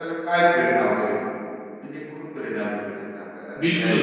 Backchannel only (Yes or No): No